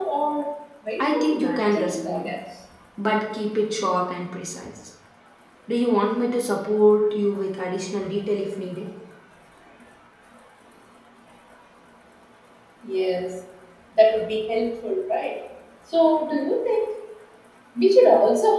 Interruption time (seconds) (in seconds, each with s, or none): 1.0 s